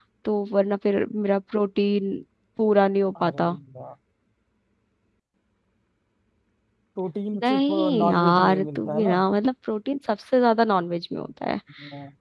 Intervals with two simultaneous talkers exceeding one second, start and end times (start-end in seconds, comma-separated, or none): 7.5-9.1